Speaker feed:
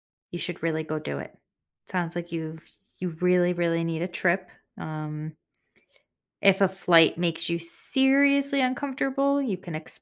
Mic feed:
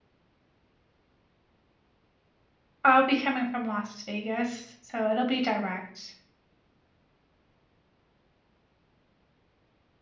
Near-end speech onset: 2.8 s

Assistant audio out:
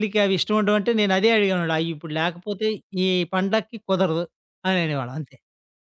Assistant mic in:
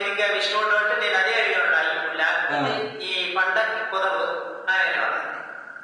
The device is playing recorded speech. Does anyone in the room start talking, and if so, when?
2.5 s

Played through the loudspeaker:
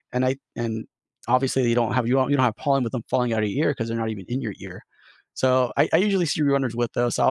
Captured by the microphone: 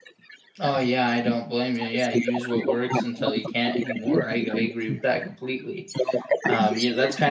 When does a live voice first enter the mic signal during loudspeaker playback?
0.6 s

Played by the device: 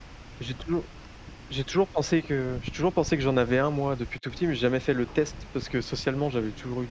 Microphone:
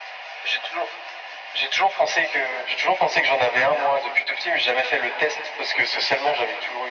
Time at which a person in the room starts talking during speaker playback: none

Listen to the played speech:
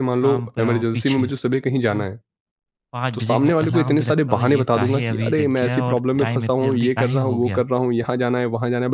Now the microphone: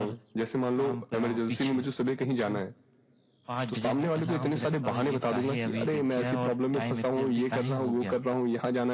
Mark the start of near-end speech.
none

